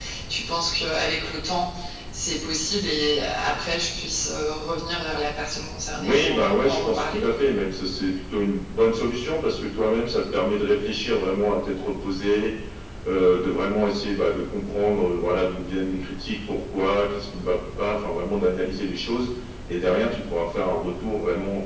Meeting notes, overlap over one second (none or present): present